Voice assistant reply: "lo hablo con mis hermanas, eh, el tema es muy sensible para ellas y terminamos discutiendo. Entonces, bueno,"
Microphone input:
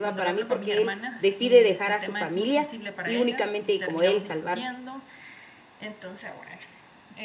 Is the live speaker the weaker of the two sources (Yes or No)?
No